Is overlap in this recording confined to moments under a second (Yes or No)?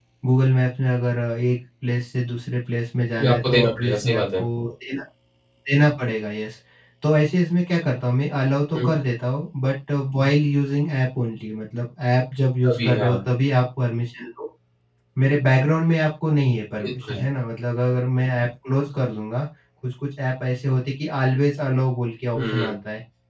No